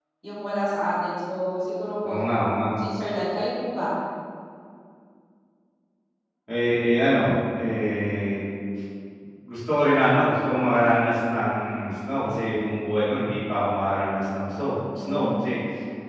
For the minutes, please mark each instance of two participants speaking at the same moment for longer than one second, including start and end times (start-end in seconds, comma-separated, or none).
none